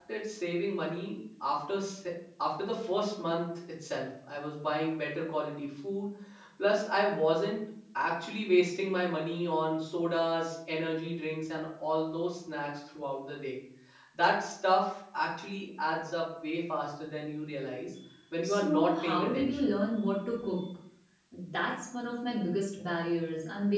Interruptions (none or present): present